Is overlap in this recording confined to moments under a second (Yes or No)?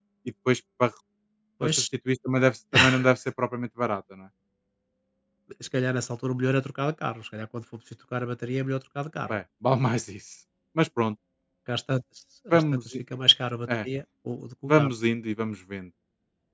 Yes